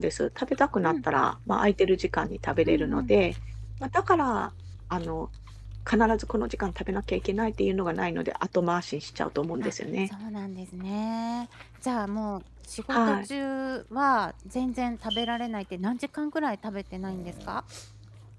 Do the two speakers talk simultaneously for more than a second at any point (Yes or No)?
No